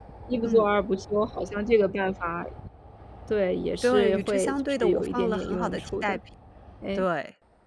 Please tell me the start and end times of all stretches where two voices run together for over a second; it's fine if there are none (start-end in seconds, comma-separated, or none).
3.8-6.2